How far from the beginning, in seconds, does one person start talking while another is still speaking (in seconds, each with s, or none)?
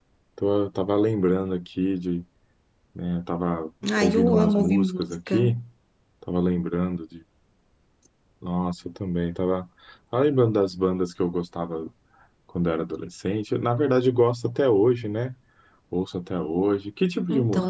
4.0 s